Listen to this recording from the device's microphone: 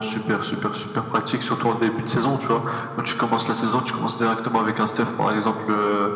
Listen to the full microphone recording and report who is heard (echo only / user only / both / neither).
echo only